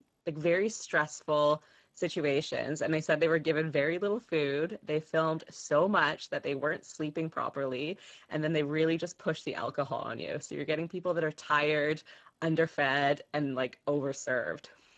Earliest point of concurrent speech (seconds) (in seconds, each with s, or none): none